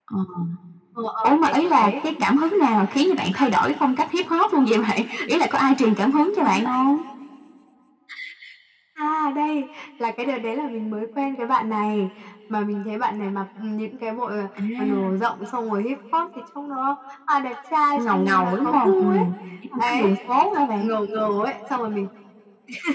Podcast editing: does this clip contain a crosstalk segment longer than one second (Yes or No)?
Yes